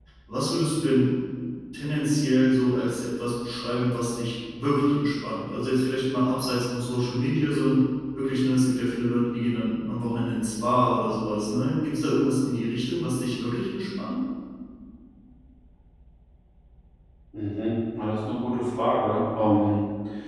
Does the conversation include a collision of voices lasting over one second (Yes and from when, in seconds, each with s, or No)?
No